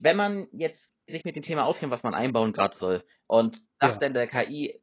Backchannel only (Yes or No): Yes